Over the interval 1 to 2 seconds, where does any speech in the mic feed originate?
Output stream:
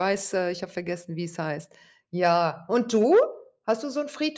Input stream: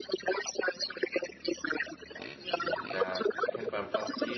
echo only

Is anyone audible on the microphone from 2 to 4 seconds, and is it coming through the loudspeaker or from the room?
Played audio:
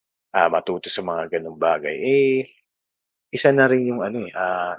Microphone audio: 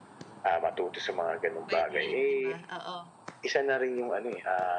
both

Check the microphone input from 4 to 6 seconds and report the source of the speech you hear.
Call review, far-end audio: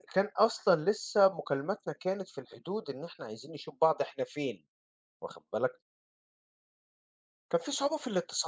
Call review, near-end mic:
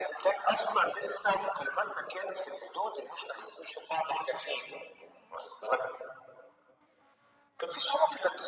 echo only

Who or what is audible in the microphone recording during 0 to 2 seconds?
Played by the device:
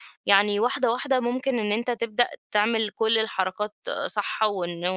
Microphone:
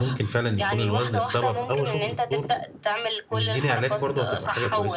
both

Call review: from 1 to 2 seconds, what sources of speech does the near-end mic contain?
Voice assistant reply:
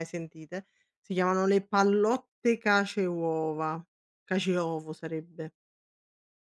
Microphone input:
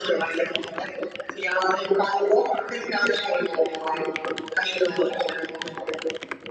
echo only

